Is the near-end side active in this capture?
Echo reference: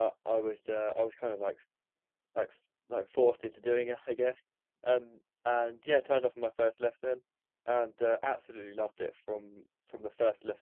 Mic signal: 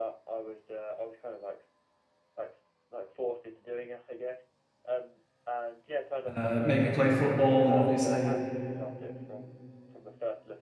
Yes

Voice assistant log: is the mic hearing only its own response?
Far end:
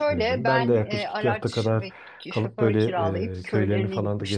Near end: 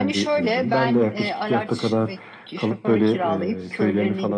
Yes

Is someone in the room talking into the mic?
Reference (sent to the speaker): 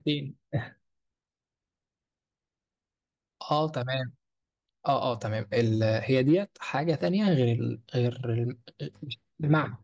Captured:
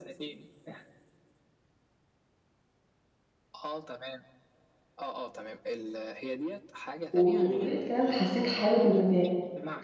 Yes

